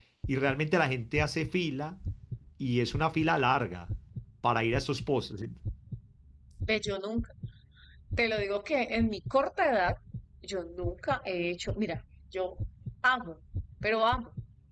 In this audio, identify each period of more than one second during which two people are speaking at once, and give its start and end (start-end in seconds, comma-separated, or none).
none